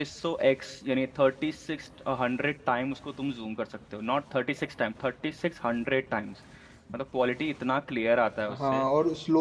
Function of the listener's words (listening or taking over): taking over